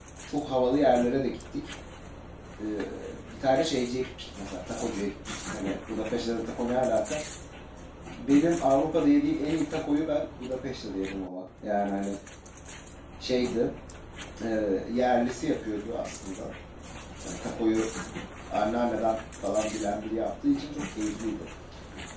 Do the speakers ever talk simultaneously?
No

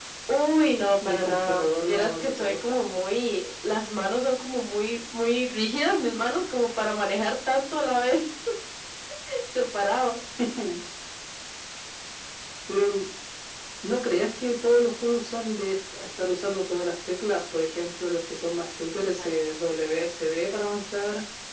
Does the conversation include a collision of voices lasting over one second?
Yes, from 1.1 s

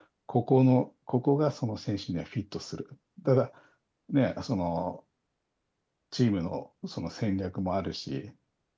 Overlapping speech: No

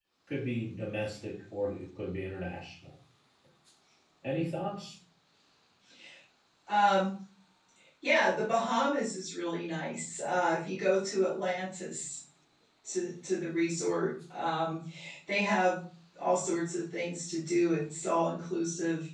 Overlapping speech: No

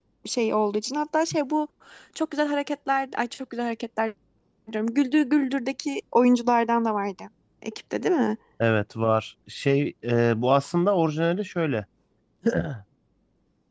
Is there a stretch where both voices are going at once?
No

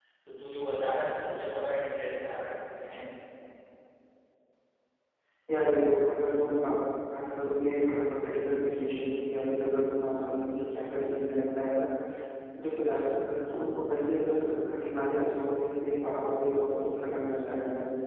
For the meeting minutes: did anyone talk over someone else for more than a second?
No

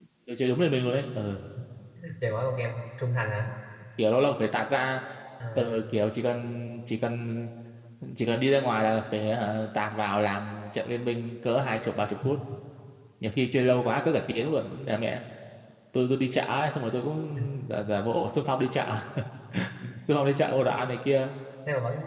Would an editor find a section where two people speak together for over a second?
No

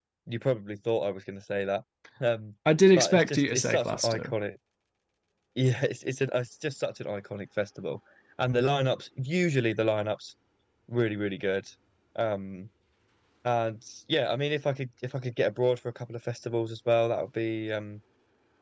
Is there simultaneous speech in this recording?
Yes, from 3.0 s

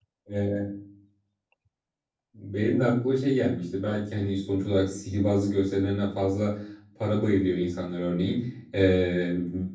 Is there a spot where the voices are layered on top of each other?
No

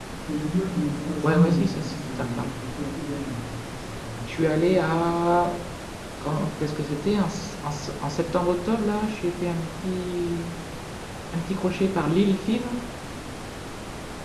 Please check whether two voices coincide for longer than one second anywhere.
Yes, from 1.2 s

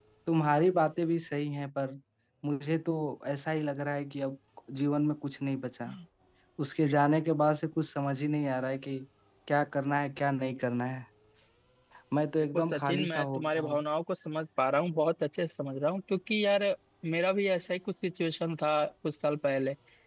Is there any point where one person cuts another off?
Yes, from 12.4 s

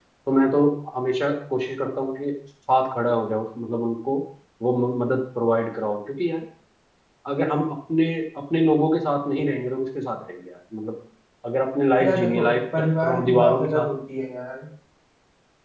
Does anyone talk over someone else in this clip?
Yes, from 12.0 s

